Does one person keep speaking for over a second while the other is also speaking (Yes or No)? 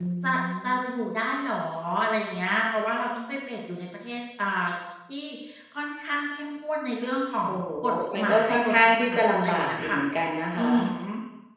Yes